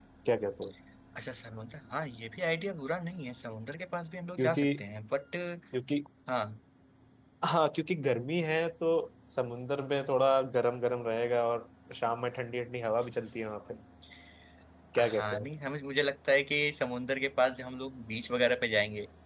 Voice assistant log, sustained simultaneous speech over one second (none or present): none